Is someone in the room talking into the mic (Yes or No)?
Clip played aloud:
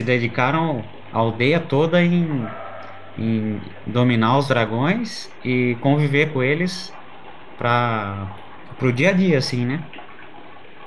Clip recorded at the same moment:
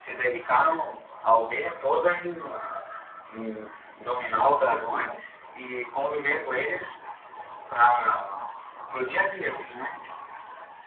No